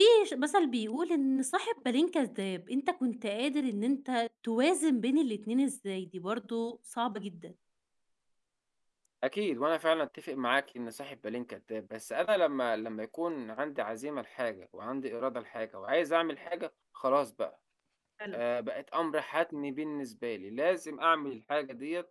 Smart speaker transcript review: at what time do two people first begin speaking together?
none

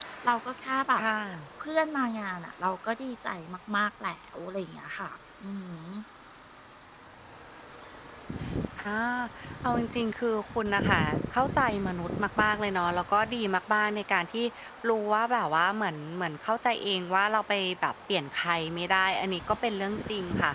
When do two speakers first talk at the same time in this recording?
none

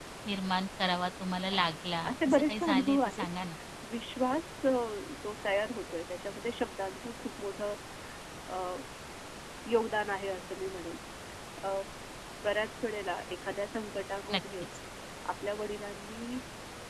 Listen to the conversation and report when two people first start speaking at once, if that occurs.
2.0 s

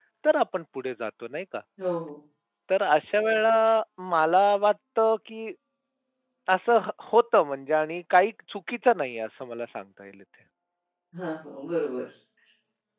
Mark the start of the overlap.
none

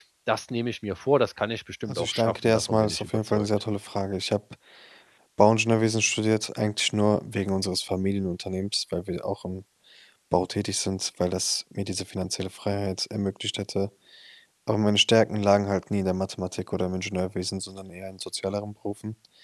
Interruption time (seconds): 1.9 s

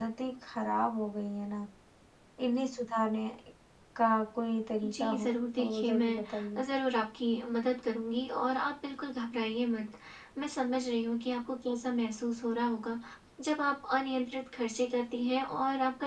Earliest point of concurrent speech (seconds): 4.8 s

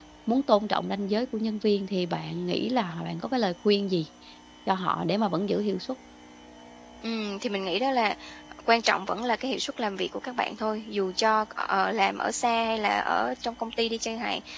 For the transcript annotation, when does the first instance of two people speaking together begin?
none

